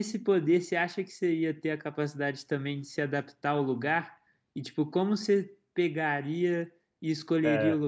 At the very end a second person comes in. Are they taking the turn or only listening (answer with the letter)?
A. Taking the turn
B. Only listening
B